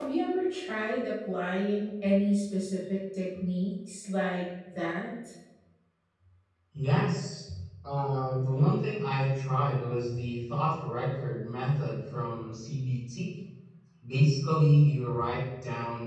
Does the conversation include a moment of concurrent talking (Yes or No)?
No